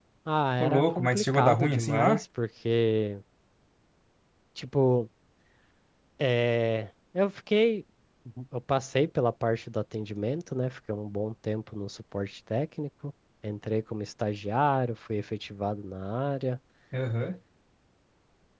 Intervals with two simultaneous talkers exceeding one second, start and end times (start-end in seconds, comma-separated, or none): 0.6-2.2